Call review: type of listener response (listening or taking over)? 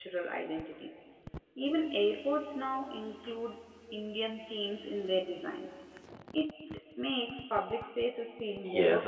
taking over